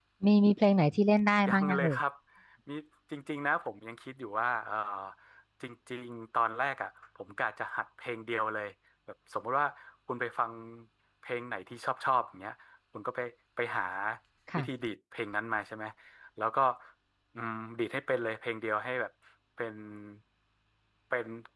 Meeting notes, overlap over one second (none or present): none